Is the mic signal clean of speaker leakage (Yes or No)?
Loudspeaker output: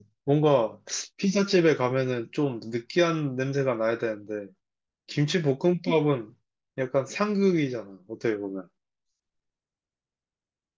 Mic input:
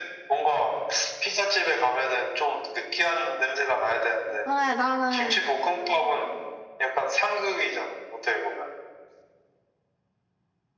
No